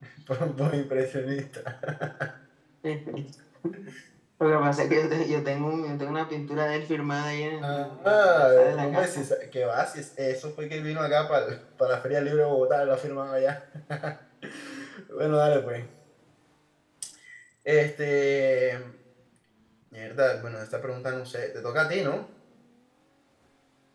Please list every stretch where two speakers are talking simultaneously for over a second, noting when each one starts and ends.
7.6-9.3

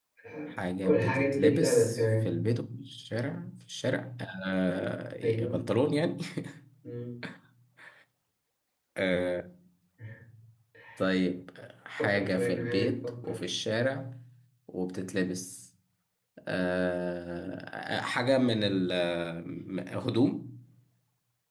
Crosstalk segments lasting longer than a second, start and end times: 0.5-2.4, 12.0-13.5

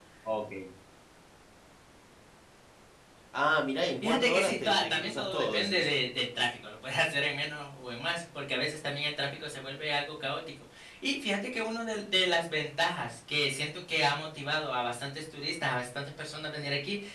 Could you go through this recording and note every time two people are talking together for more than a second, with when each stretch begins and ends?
4.0-5.9

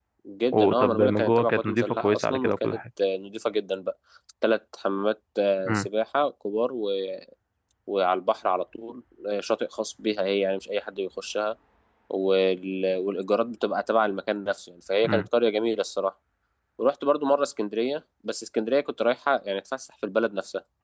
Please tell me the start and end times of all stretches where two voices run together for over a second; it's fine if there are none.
0.5-2.8

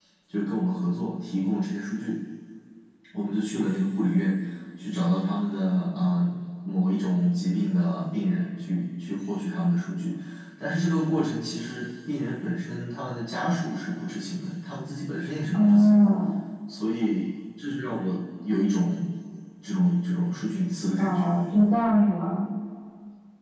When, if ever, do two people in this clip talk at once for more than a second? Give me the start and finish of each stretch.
none

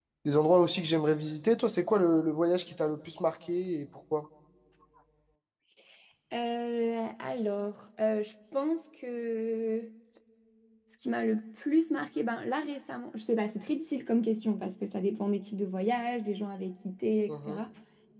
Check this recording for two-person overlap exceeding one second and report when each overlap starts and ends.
none

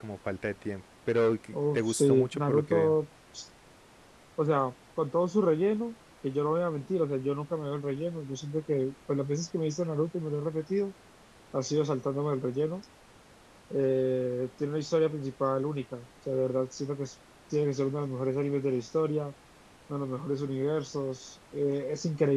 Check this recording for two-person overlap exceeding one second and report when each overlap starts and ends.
1.5-3.0

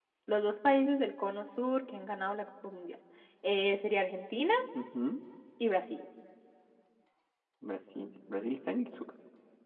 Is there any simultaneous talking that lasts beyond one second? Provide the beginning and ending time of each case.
none

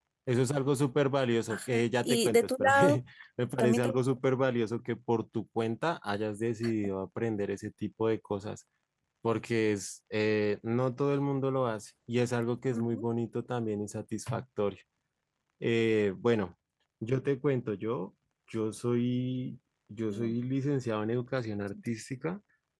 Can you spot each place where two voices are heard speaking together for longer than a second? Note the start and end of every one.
1.5-3.0

